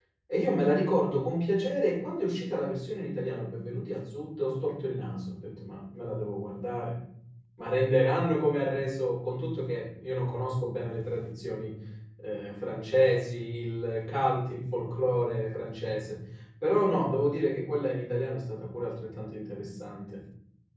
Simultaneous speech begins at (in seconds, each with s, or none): none